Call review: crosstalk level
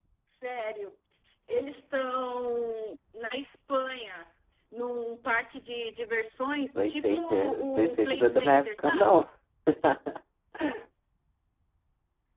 present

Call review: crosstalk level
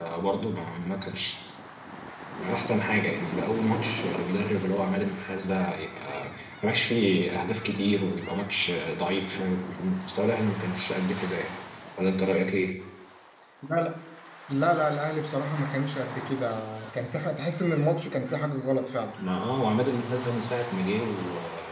none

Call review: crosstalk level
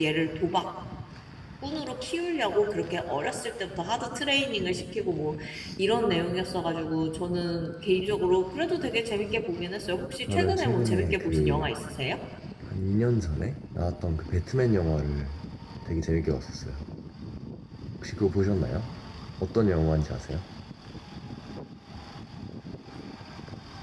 present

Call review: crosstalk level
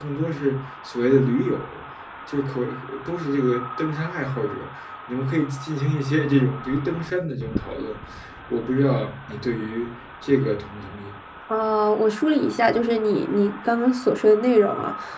none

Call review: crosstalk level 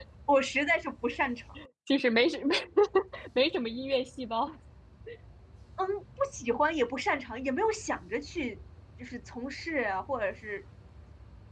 none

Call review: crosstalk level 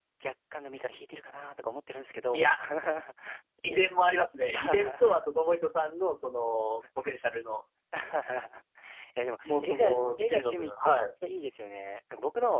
present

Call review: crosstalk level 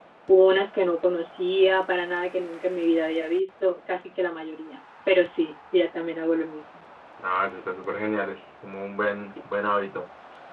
none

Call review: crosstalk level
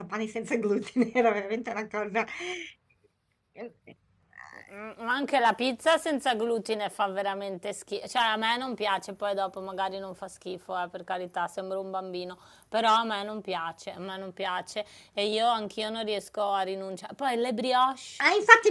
none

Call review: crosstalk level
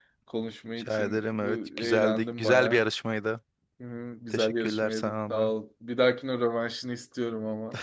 present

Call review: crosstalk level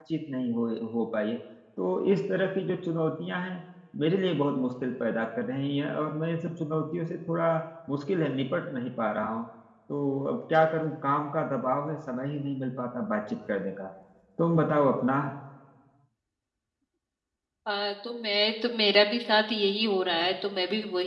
none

